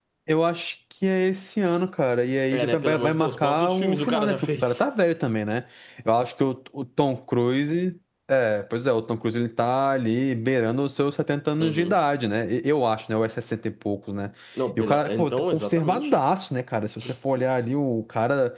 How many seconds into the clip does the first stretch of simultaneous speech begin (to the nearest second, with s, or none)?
3 s